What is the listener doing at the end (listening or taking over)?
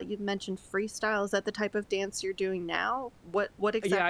taking over